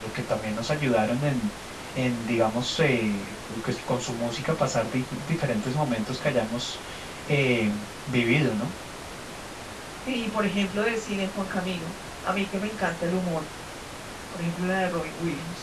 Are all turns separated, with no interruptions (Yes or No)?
Yes